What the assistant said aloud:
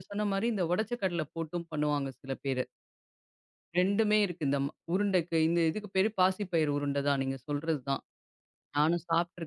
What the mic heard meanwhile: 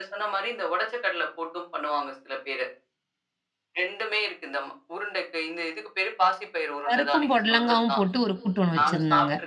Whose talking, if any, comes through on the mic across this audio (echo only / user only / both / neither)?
both